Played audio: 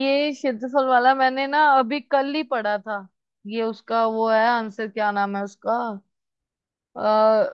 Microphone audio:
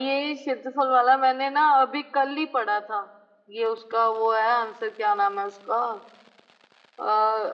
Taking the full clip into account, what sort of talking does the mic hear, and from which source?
echo only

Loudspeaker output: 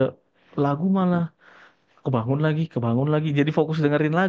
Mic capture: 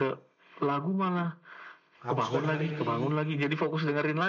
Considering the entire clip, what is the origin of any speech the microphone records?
both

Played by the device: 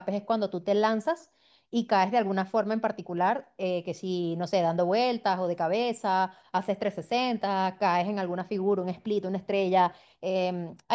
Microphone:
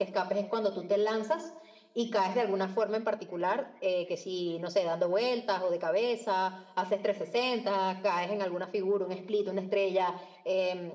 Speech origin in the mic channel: echo only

